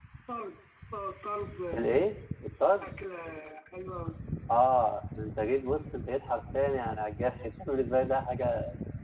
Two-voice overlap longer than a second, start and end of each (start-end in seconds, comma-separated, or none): none